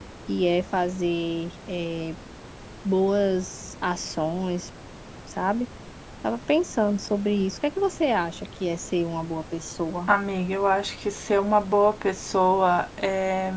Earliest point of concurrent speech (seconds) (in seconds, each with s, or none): none